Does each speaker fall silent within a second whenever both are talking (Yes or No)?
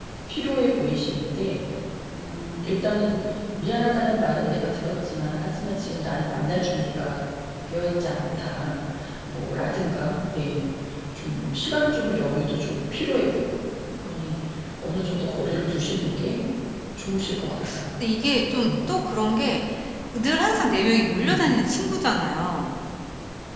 Yes